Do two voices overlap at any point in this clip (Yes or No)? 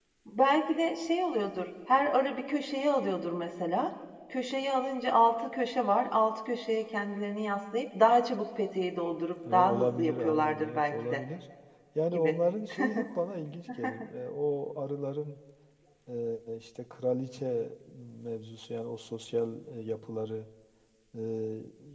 Yes